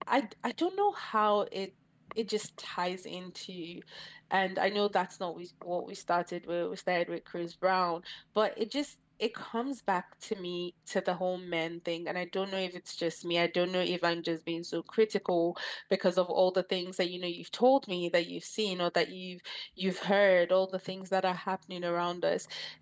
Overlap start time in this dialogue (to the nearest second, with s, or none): none